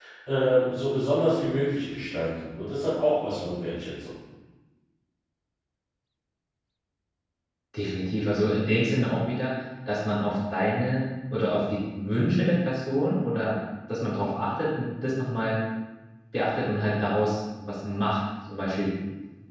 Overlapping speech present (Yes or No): No